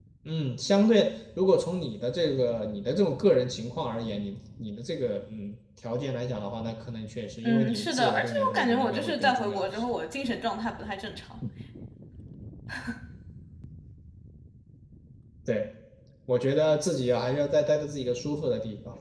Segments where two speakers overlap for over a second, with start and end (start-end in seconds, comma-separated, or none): 7.4-9.8